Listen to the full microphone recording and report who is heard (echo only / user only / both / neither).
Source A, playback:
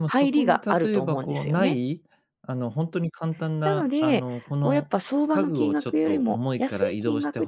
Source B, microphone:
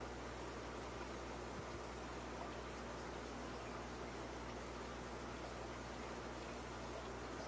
neither